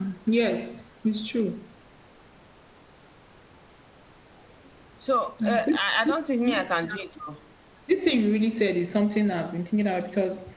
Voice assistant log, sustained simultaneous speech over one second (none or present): none